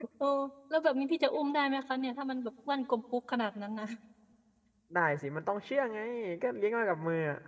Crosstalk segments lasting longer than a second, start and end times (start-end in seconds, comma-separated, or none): none